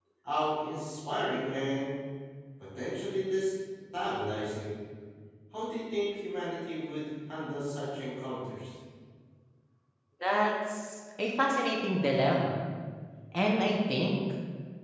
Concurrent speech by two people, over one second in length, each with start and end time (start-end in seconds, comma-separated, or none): none